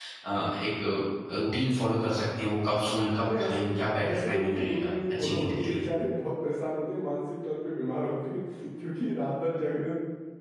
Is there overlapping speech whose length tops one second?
Yes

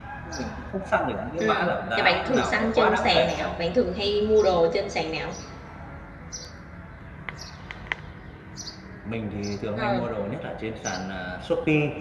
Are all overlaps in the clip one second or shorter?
No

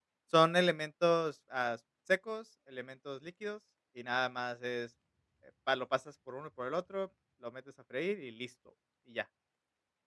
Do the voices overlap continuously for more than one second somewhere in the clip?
No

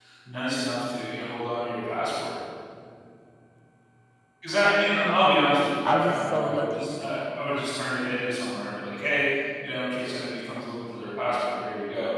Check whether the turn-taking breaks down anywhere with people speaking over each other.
Yes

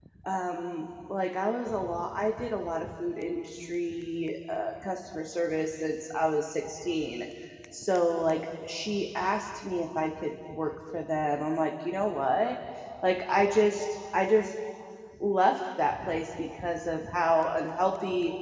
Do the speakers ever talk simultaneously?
No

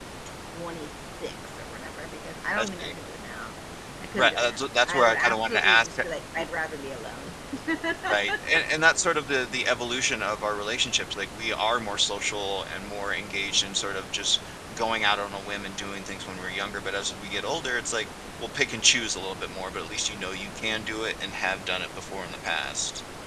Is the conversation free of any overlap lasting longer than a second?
No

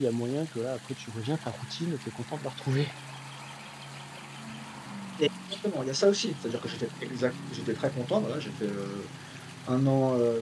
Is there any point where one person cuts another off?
No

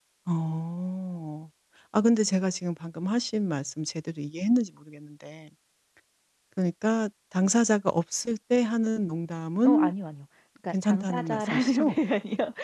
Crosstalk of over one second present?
Yes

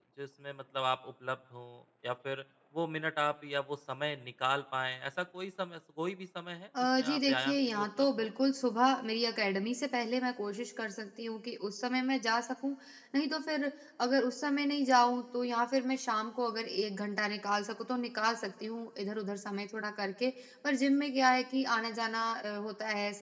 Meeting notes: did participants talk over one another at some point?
Yes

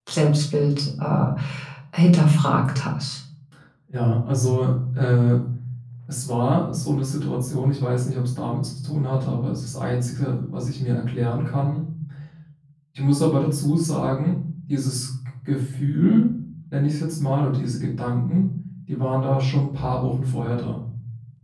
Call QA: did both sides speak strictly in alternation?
Yes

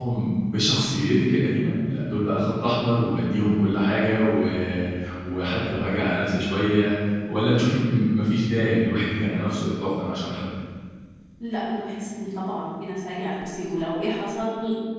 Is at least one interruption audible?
No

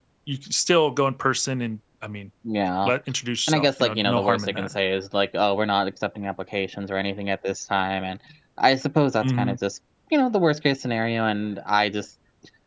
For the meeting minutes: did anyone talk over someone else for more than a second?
Yes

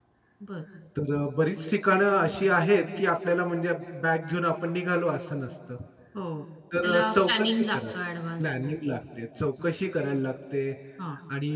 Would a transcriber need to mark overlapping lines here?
Yes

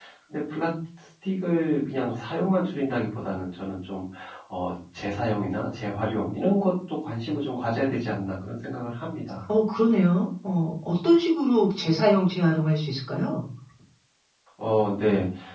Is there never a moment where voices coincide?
Yes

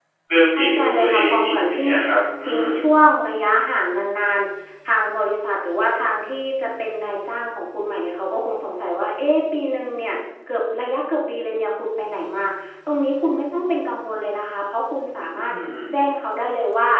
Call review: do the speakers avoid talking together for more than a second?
No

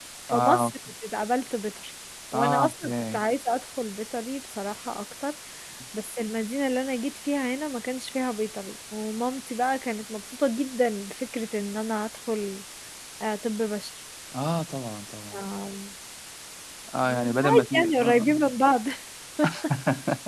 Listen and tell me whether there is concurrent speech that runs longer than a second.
Yes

